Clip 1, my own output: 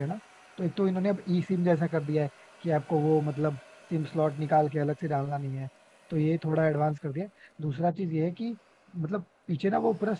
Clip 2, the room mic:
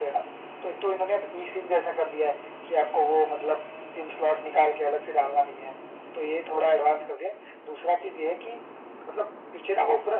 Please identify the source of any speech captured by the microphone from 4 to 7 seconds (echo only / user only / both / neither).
echo only